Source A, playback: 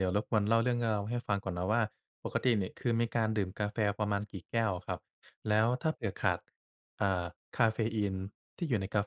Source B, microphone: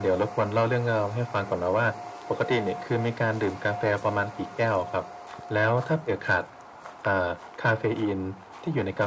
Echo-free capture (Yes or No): No